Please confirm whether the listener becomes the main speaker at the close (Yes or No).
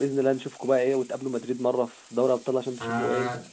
Yes